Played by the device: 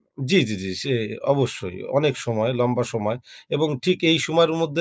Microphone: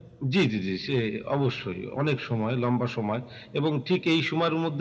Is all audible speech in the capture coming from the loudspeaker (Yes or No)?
Yes